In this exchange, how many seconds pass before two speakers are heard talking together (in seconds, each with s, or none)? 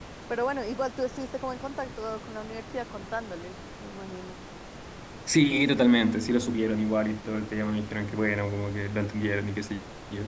none